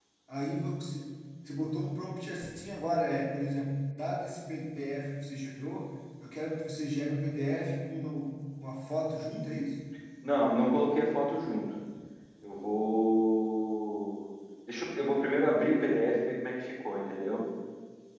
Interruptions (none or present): none